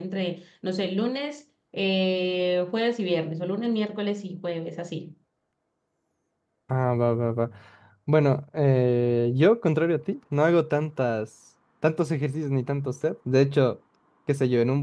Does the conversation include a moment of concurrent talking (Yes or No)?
No